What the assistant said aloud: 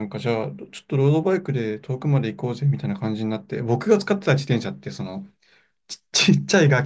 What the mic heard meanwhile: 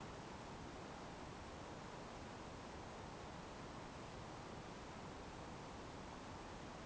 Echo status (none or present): none